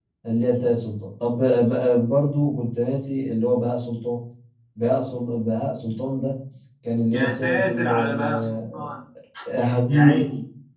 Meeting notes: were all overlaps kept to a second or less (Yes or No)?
No